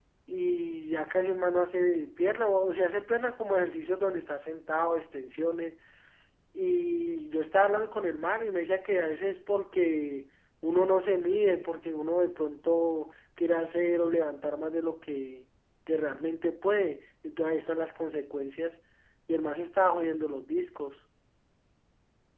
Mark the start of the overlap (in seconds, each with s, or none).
none